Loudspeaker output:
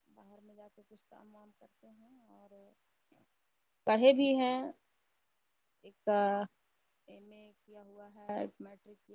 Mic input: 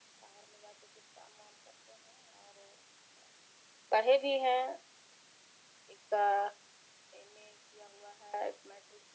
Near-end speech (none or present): none